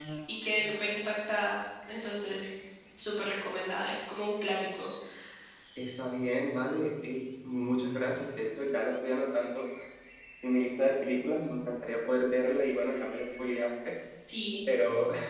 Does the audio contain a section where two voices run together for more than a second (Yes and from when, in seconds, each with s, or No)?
No